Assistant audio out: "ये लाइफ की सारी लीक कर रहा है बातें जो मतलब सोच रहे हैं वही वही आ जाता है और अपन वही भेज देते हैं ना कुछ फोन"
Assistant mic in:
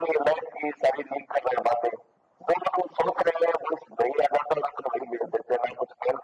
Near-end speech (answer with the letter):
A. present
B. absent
B